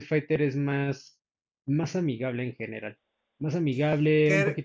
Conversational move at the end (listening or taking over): taking over